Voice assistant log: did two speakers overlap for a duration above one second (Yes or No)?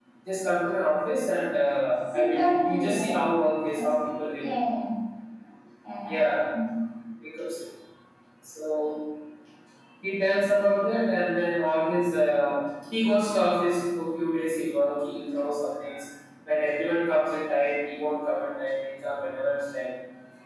Yes